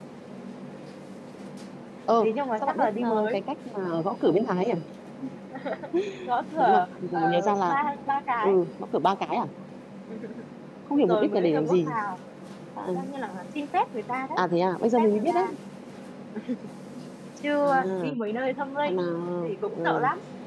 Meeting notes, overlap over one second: present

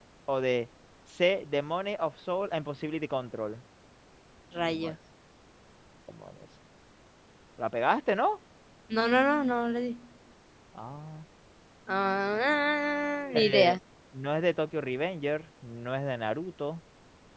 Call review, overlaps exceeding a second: none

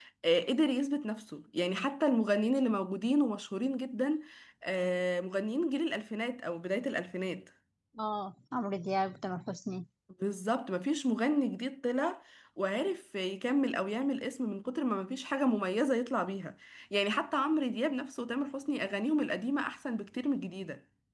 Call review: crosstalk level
none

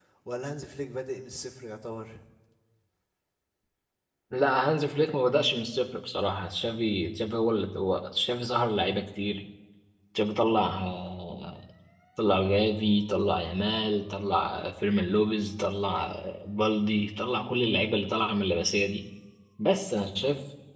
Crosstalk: none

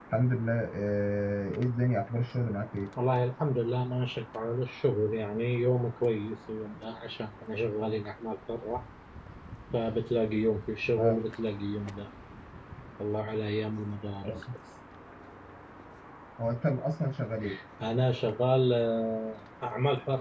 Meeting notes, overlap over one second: none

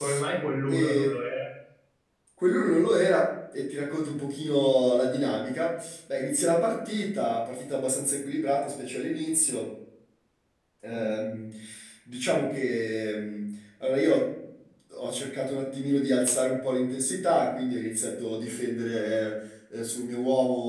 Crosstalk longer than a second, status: none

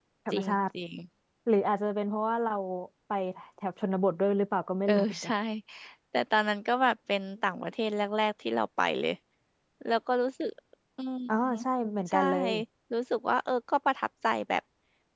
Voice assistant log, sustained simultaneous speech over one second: none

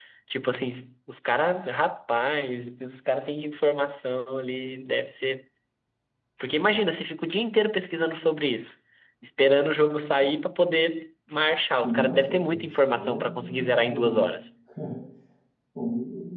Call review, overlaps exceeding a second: present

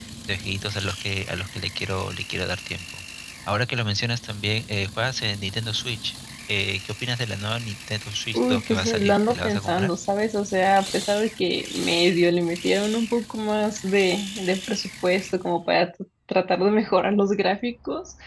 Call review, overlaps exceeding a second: present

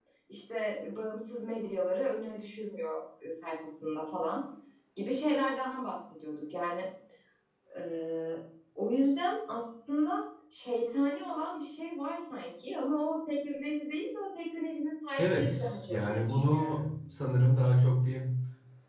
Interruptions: present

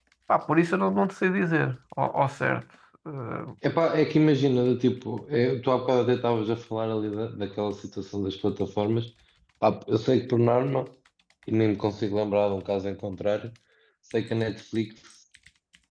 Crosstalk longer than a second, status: none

